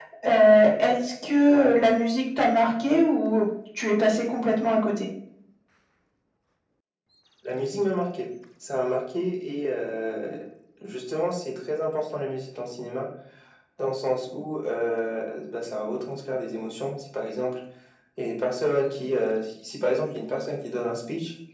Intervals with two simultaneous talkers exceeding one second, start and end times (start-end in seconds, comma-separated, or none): none